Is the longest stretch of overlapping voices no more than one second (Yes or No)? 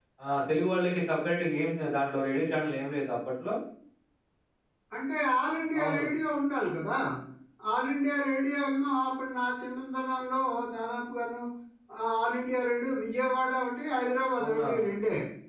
Yes